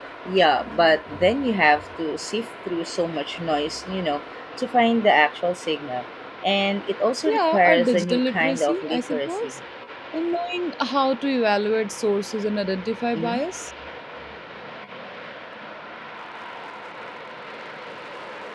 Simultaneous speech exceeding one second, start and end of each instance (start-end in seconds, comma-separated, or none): 7.3-9.5